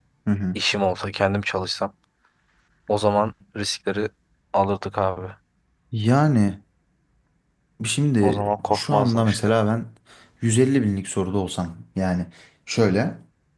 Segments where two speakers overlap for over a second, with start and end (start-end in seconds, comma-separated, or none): 8.2-9.5